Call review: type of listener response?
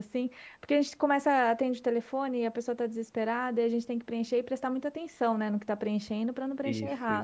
listening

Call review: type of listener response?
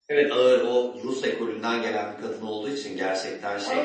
taking over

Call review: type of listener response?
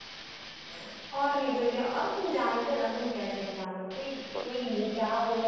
listening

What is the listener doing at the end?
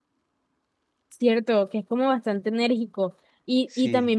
listening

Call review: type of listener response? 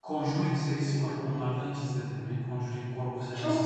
taking over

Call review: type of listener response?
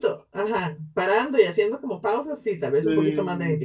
taking over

